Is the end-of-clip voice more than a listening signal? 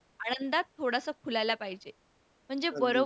No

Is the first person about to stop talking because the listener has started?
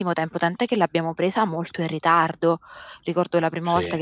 No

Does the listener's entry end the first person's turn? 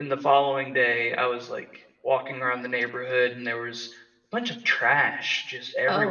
No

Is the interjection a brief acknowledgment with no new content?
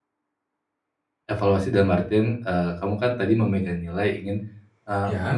Yes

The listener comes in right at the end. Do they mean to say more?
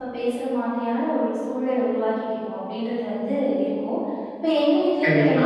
No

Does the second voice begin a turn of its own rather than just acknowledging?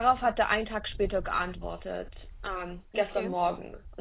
No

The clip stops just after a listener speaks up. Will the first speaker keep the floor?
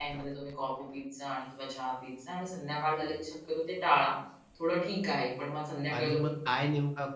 No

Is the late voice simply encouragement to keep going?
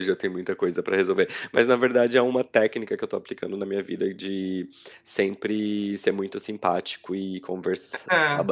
Yes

